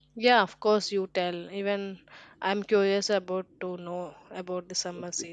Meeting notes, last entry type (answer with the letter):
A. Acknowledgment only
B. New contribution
B